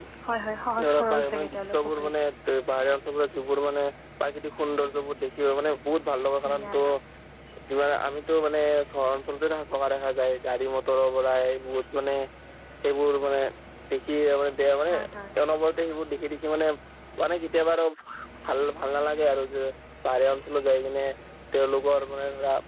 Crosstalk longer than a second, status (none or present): present